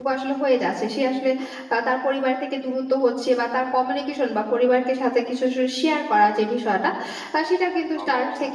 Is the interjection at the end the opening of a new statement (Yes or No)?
No